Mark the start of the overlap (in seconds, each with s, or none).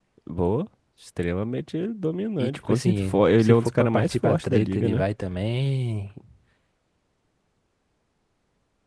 2.4 s